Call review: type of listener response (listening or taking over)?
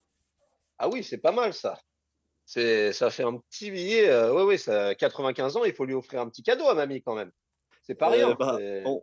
taking over